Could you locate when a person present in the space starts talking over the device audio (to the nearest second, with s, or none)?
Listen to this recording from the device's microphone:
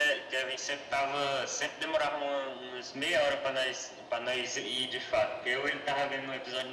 none